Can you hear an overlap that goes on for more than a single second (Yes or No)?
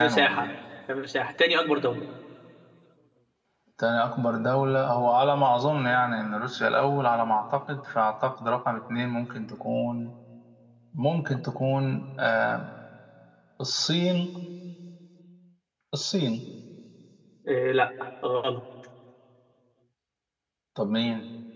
No